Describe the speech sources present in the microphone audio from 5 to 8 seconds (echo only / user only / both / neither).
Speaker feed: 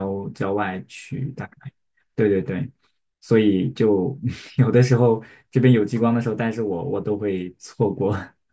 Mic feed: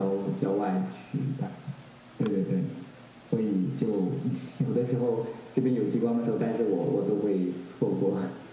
echo only